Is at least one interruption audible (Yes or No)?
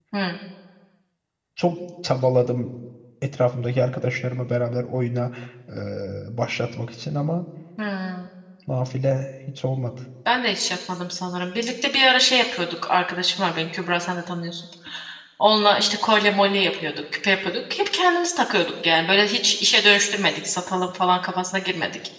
No